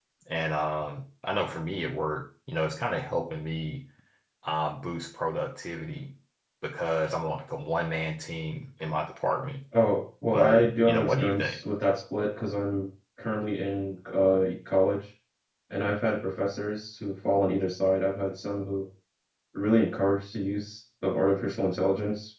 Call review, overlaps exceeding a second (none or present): present